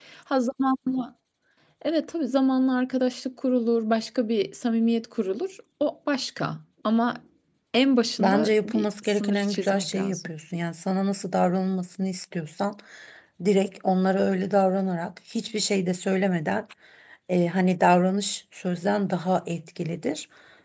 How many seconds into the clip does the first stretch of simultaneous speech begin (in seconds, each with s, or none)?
8.2 s